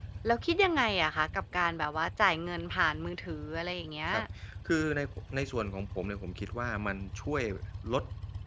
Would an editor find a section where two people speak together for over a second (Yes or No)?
No